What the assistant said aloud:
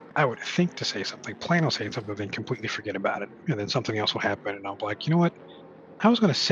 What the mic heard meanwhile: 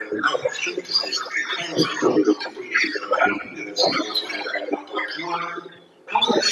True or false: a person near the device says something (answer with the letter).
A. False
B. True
A